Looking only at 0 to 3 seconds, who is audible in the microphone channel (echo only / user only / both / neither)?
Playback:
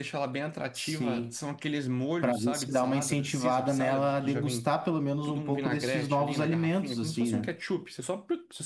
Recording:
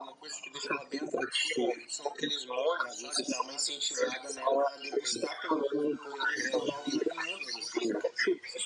echo only